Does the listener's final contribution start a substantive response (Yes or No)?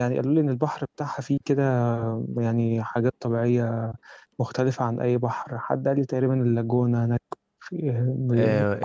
Yes